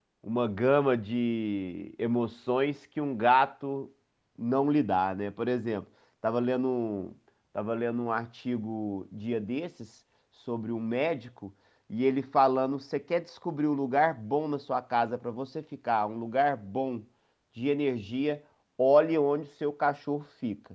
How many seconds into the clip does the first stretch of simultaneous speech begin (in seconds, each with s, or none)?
none